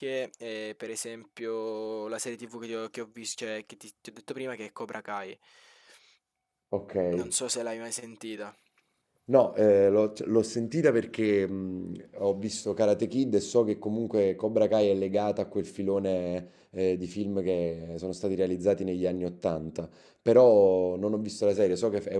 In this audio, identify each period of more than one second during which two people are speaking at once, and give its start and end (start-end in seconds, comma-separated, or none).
none